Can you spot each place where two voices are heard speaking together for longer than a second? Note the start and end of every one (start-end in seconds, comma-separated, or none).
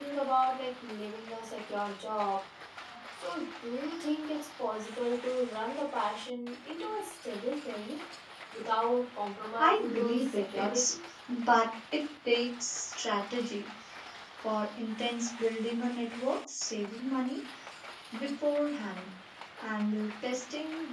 9.6-10.9